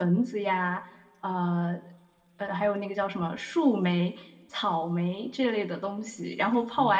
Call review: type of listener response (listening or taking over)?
listening